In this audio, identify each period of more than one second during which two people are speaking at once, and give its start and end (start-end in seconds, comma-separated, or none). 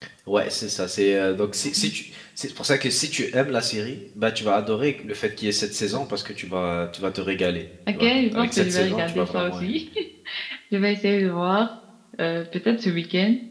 7.9-9.8